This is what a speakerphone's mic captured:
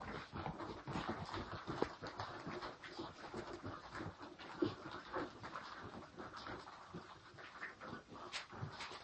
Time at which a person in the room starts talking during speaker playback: none

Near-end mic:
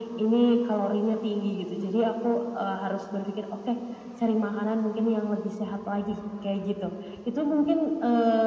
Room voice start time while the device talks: none

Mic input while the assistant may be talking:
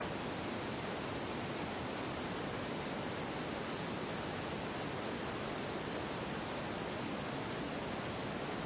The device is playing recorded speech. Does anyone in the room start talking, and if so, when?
none

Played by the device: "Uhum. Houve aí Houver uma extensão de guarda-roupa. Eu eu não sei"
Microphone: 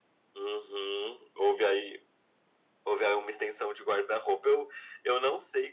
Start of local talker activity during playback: none

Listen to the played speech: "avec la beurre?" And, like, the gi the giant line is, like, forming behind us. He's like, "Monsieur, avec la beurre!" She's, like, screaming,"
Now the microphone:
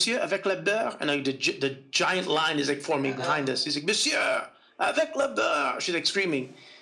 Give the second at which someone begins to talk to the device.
3.0 s

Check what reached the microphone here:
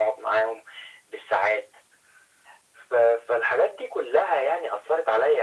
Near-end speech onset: none

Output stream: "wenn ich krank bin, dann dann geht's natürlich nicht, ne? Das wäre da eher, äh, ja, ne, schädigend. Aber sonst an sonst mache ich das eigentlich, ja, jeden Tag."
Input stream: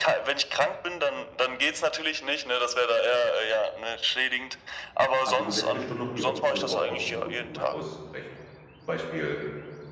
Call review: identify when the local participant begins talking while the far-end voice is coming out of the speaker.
5.2 s

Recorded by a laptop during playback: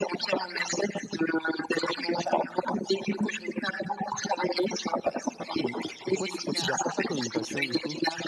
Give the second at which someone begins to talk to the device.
5.6 s

